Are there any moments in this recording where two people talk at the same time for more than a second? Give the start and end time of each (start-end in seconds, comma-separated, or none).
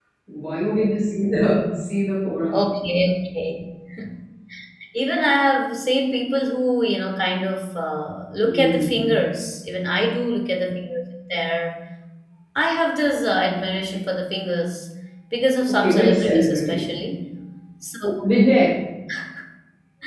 15.7-16.9